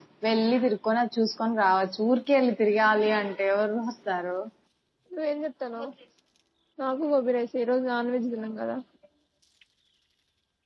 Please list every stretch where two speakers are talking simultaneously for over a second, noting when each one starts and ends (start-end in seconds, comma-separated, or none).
none